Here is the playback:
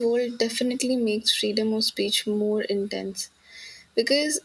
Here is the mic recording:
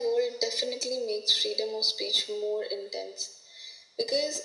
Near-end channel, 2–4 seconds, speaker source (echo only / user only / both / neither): echo only